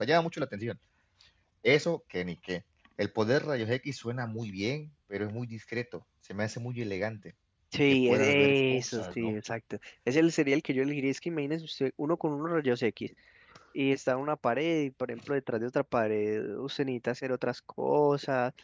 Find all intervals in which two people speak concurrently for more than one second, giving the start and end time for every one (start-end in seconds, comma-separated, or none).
8.1-9.3